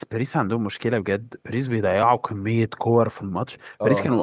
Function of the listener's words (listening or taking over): listening